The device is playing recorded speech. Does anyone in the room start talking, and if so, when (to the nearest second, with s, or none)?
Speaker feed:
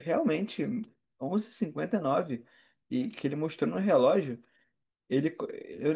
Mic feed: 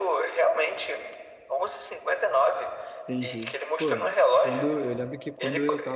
3 s